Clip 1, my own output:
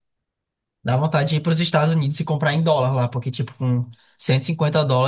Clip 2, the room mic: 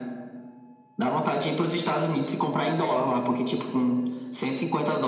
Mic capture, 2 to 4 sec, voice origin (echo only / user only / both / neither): echo only